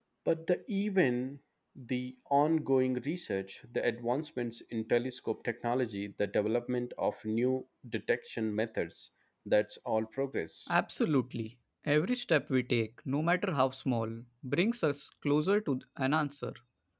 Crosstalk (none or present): none